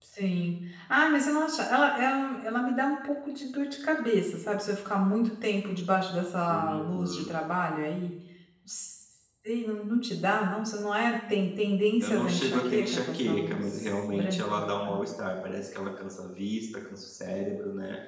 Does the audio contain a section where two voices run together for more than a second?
Yes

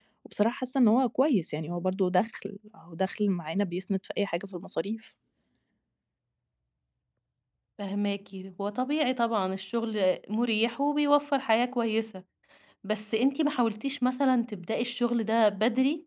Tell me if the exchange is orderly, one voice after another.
Yes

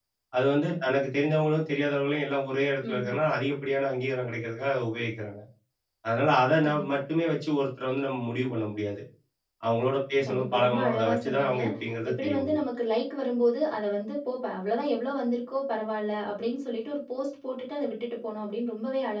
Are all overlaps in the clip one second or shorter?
No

